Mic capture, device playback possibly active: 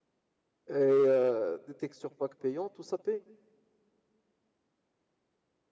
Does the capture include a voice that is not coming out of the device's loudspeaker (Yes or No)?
Yes